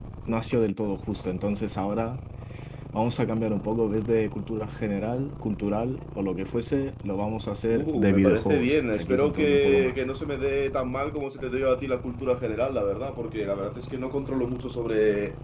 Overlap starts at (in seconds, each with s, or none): 7.7 s